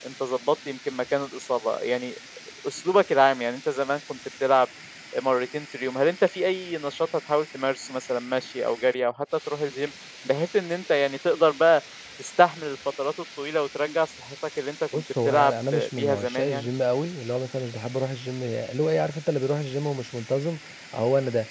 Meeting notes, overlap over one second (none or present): present